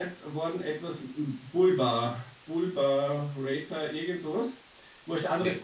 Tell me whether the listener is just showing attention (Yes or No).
Yes